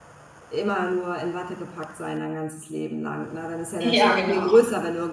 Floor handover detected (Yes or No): No